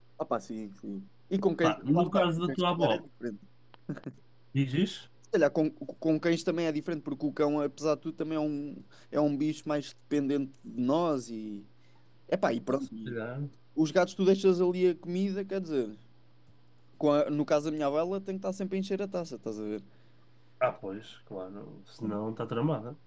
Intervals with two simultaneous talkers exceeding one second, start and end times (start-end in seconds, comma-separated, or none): 1.6-2.9